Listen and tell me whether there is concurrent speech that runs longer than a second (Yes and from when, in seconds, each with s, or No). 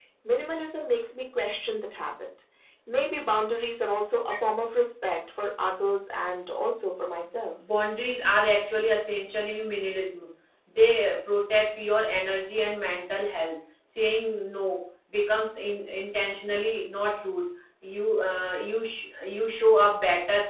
No